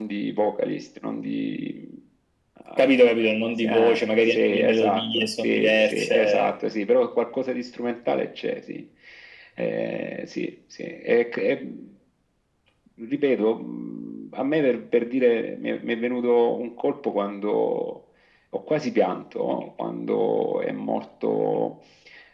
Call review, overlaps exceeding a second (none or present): present